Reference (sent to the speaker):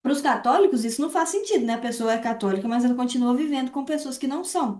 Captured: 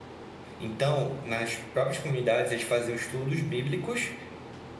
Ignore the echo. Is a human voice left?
Yes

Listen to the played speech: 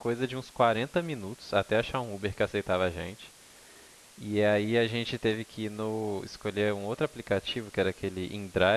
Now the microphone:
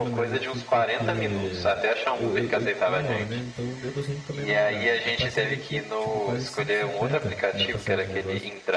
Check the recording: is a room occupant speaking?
Yes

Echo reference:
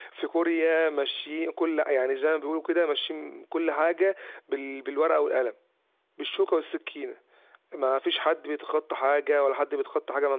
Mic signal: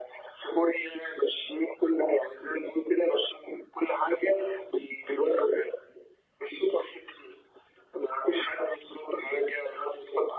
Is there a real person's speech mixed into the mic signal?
No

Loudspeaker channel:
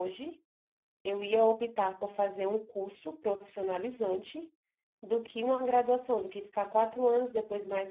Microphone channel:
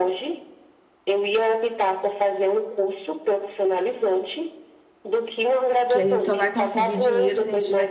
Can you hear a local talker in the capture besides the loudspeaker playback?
Yes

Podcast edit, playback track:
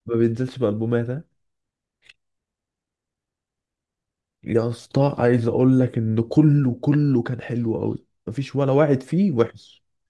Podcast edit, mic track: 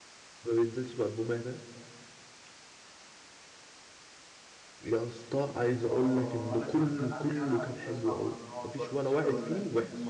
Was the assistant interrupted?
Yes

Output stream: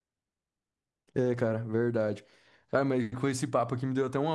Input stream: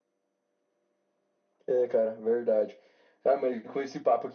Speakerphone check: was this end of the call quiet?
Yes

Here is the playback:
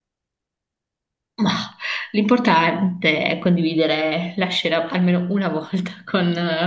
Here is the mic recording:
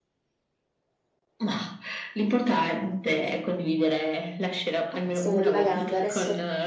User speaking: Yes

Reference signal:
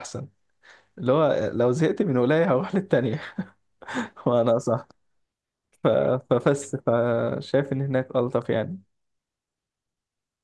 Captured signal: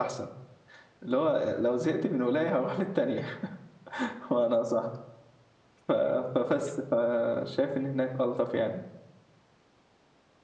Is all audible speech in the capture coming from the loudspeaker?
Yes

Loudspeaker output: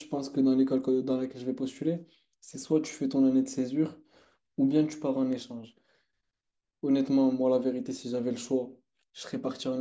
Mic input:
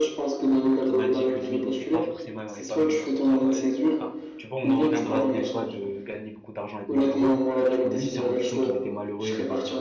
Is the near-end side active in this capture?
Yes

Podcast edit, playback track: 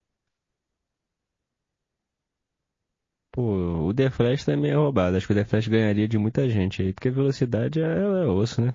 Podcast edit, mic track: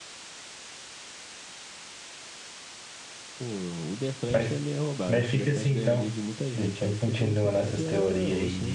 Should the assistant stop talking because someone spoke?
Yes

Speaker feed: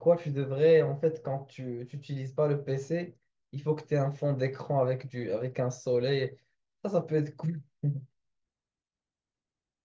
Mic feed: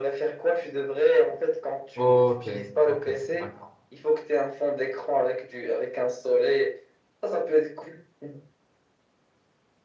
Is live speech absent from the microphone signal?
No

